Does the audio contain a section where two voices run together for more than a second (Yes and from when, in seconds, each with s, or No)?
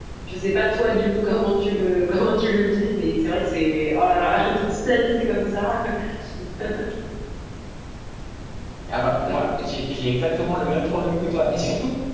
No